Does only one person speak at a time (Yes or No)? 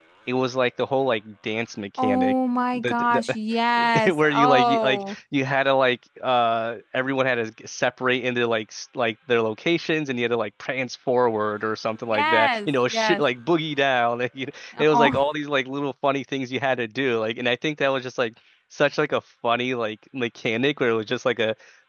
No